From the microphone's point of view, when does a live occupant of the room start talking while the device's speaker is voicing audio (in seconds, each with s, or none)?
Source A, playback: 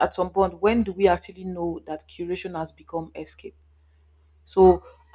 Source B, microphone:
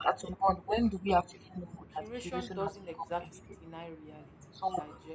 2.0 s